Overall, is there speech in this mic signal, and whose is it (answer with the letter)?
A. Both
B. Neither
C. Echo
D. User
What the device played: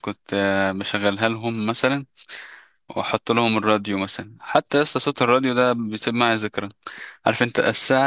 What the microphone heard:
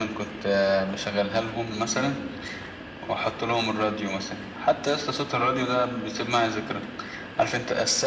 C